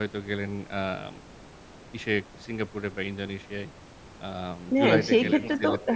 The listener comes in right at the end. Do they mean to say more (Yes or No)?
Yes